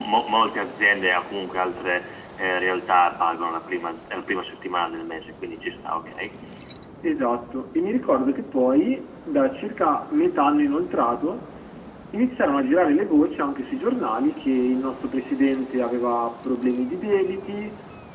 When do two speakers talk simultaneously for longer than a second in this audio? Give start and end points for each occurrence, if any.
none

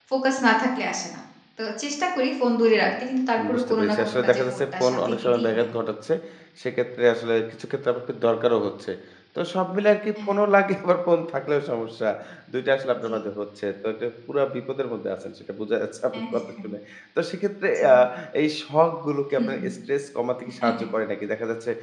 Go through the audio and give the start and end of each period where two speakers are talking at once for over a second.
3.5-5.7

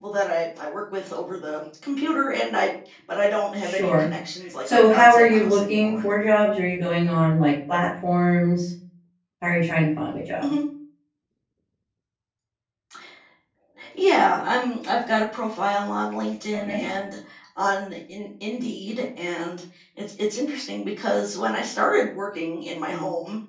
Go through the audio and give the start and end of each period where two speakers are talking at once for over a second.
4.6-6.0

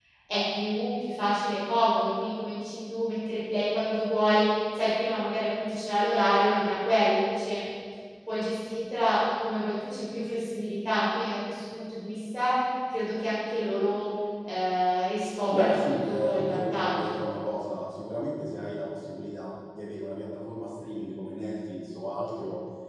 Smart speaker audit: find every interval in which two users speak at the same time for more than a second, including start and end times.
15.5-17.2

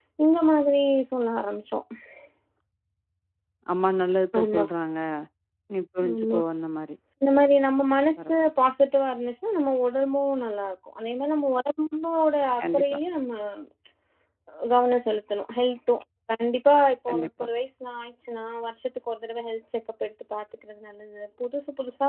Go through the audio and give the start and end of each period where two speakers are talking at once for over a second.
none

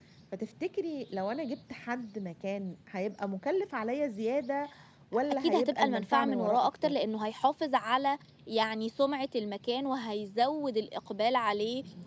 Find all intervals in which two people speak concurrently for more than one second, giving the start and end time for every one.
5.4-6.9

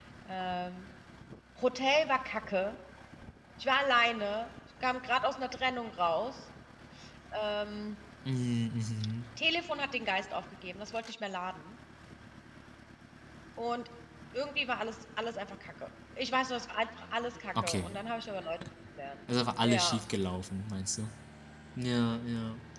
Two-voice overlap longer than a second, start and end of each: none

